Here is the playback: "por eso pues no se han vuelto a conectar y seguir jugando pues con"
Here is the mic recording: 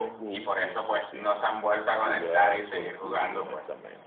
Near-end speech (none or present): present